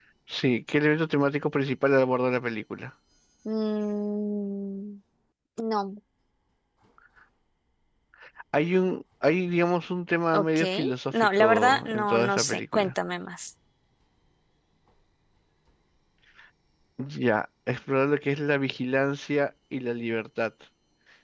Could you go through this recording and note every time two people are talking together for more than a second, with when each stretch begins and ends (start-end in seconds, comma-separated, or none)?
11.1-12.9